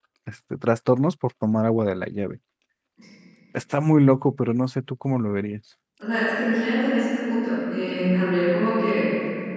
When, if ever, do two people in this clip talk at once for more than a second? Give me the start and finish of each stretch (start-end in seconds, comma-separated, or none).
none